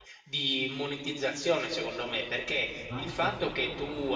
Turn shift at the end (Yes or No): No